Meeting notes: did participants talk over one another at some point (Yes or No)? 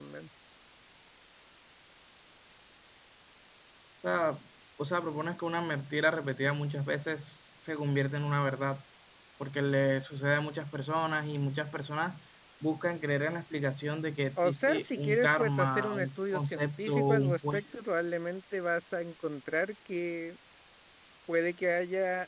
Yes